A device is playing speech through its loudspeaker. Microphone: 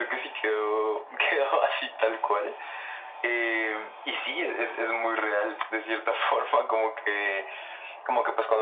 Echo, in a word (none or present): present